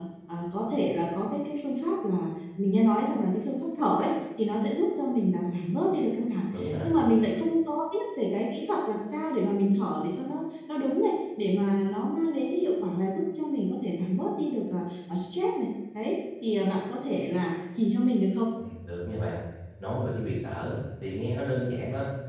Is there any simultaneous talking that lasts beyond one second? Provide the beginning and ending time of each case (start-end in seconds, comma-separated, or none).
none